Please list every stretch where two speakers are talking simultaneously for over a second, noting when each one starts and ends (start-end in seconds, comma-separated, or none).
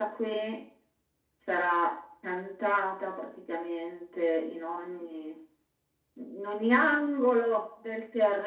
none